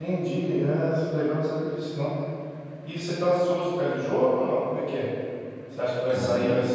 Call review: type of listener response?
listening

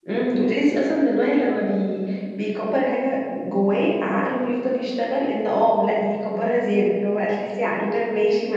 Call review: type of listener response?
listening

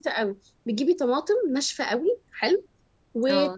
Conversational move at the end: listening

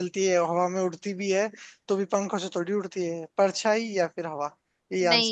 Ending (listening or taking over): taking over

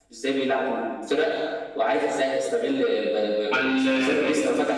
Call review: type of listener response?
listening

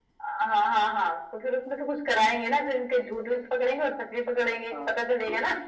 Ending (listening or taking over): taking over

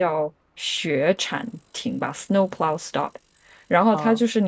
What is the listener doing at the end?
listening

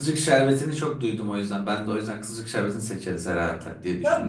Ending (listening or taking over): taking over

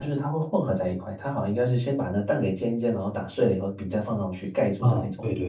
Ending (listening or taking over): taking over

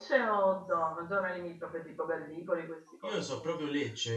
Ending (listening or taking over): taking over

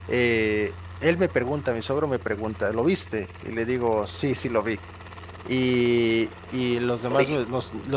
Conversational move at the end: listening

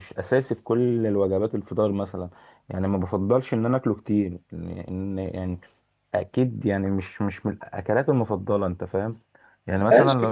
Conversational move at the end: taking over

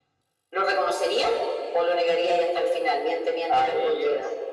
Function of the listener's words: taking over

